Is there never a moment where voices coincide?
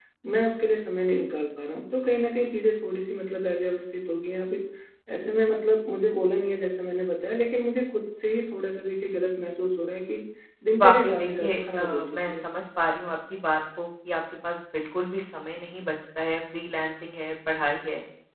No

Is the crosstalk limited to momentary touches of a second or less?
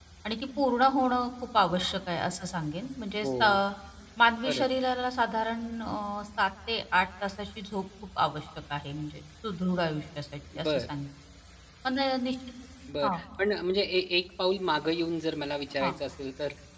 Yes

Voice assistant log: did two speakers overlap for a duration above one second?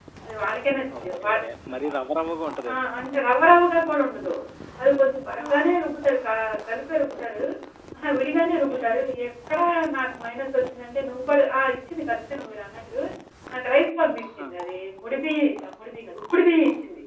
No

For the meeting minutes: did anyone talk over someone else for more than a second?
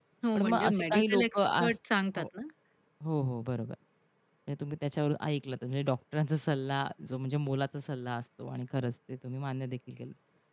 Yes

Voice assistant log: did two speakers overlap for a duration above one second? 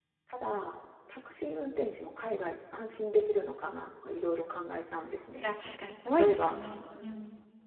No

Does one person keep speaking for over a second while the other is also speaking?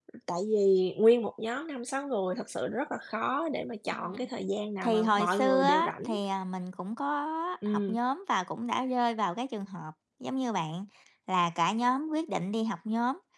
Yes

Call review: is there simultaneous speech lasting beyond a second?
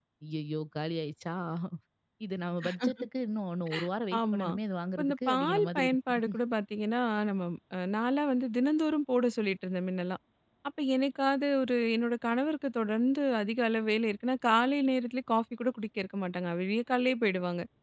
Yes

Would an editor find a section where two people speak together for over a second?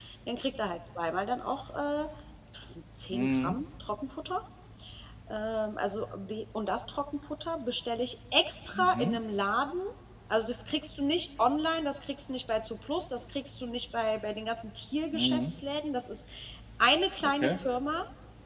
No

